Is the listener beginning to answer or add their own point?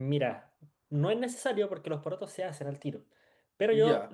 No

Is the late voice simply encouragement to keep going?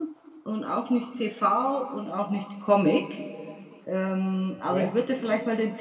Yes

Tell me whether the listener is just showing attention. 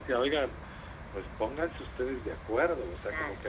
Yes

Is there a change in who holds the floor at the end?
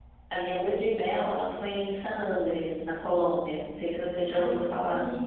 Yes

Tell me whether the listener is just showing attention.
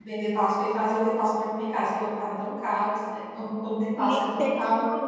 No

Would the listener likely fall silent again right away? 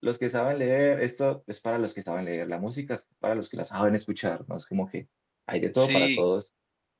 Yes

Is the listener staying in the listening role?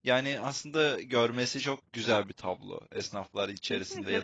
No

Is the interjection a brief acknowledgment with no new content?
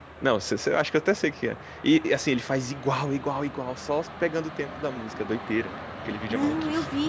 No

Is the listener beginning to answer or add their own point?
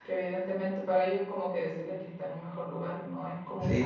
Yes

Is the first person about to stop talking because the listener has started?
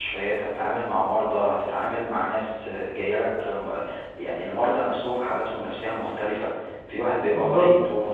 No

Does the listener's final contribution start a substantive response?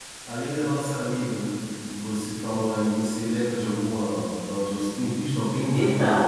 Yes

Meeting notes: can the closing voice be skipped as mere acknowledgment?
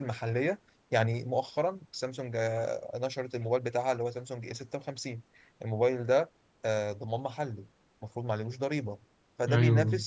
Yes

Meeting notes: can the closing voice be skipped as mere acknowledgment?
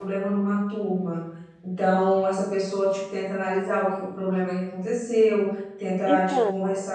Yes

